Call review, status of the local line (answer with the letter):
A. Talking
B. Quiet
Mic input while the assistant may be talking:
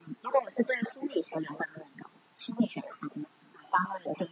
B